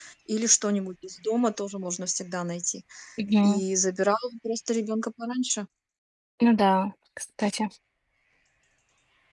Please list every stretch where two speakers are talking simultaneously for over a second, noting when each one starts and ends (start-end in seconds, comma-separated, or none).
none